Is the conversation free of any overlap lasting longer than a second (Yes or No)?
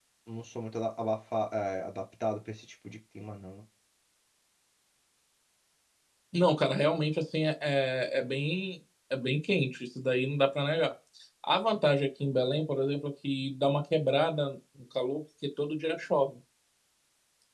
Yes